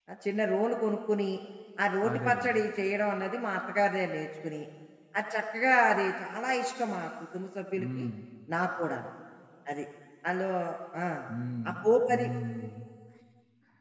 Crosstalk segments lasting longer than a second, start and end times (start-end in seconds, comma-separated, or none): none